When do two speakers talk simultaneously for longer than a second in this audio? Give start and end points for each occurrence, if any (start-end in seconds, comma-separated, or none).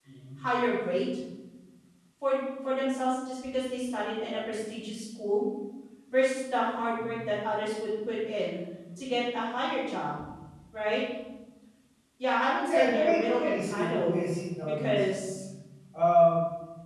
12.7-14.2